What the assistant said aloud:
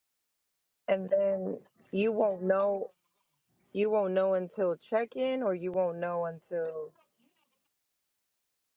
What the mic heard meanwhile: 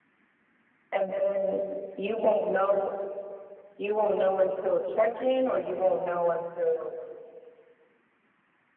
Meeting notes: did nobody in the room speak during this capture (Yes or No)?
Yes